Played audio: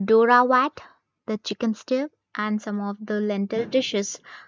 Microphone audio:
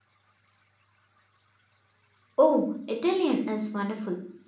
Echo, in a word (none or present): none